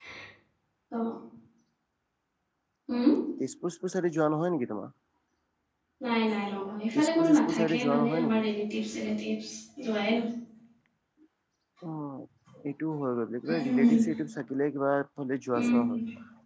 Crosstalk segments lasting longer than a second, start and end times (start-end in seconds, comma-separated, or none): 7.0-8.4